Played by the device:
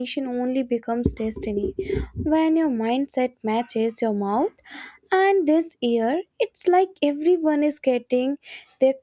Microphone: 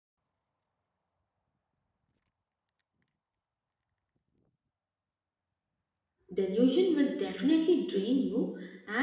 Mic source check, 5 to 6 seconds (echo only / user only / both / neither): neither